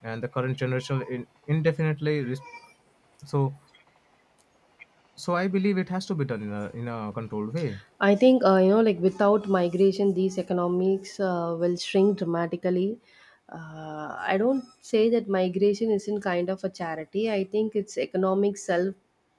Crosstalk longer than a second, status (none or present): none